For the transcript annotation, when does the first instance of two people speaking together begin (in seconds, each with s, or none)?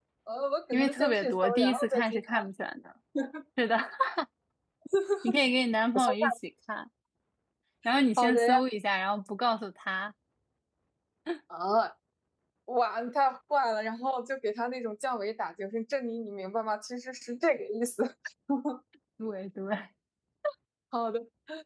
0.7 s